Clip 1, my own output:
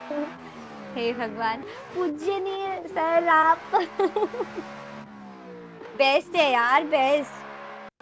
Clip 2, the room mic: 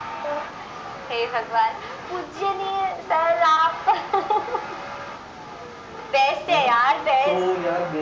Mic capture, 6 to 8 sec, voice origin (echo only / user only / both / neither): both